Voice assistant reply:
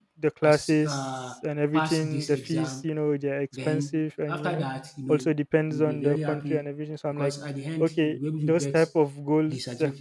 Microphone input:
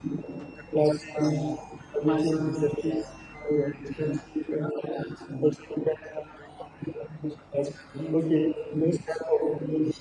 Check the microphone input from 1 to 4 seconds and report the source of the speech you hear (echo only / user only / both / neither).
echo only